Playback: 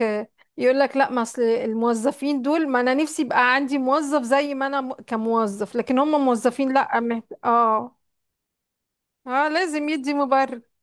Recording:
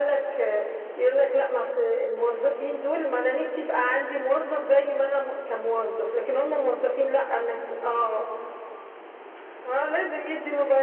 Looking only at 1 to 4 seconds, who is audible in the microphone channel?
echo only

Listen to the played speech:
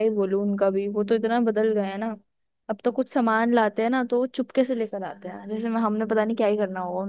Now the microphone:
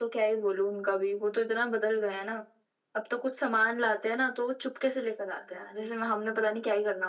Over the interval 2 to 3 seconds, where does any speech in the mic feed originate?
echo only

